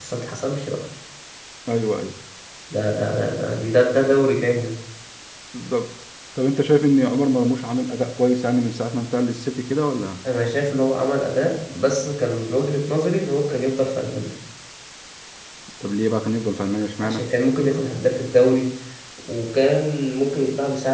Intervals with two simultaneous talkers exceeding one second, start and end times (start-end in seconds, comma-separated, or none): none